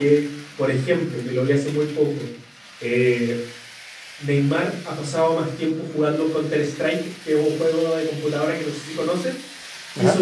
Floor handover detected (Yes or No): No